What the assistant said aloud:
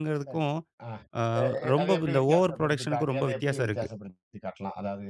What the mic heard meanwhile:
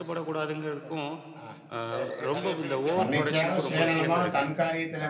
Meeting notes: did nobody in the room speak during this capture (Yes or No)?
No